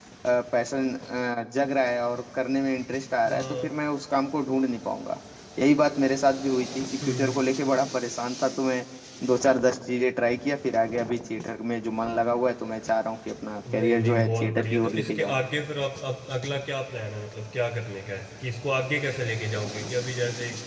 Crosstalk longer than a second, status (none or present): present